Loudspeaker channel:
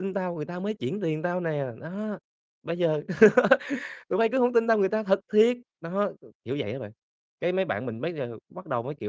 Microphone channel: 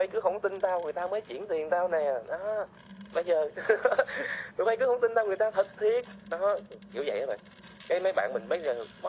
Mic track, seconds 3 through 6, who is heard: echo only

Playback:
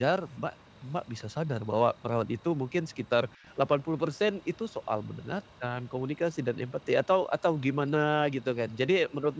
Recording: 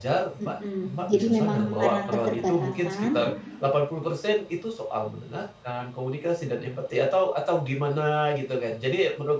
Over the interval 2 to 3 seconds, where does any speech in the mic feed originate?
both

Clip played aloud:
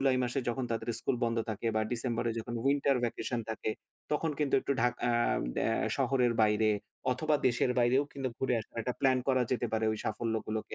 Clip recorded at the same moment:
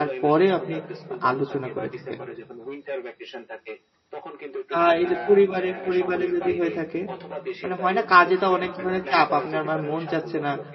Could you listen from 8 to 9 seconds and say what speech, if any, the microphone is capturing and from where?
both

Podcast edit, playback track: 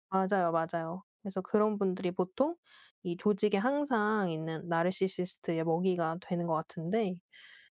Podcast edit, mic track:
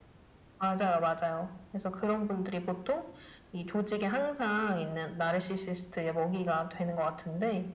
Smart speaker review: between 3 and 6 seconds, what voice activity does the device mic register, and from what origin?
echo only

